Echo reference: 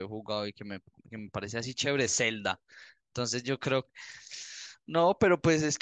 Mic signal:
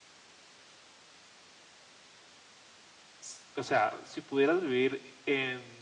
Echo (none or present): none